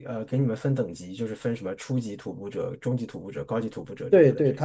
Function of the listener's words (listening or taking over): taking over